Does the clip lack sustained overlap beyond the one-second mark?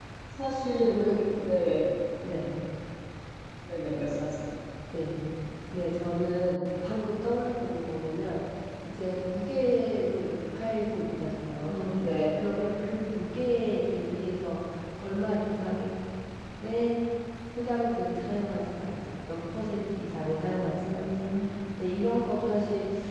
Yes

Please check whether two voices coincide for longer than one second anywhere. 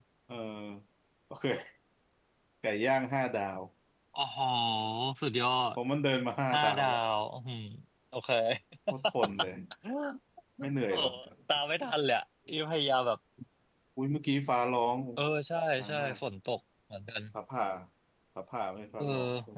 No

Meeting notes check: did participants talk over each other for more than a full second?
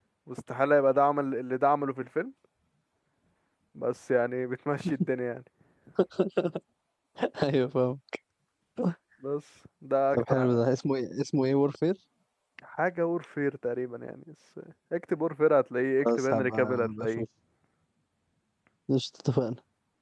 Yes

